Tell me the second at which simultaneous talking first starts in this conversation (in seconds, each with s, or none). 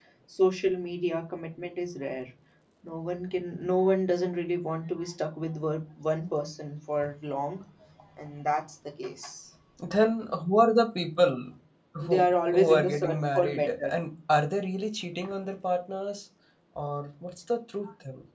12.0 s